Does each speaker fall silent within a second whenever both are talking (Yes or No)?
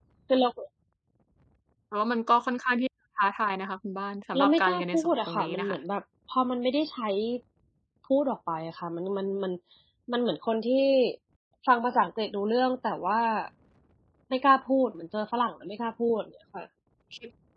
No